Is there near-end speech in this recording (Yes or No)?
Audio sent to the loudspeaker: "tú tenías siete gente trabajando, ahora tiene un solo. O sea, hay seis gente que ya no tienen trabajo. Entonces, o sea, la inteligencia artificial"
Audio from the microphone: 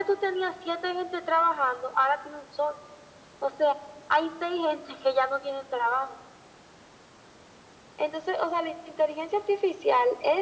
No